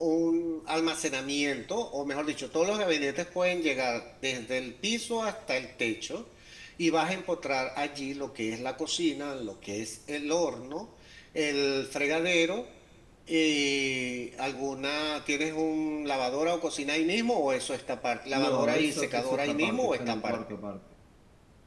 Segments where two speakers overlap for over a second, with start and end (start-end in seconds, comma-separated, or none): 18.3-20.4